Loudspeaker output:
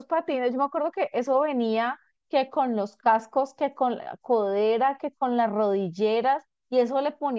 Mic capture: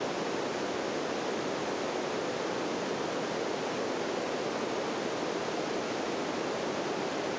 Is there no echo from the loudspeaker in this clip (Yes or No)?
Yes